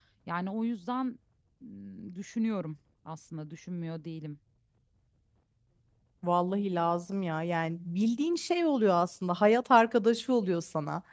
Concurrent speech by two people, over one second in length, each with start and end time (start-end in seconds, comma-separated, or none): none